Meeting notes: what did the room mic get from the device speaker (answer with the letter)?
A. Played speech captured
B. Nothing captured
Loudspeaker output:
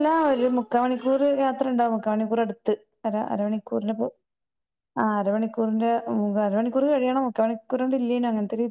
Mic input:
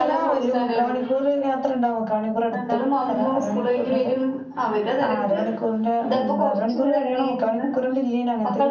A